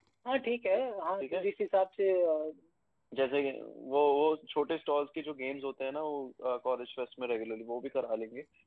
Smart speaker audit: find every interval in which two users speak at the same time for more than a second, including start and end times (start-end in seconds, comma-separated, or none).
none